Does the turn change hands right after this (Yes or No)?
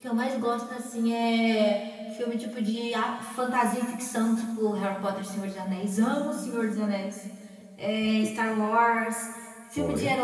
No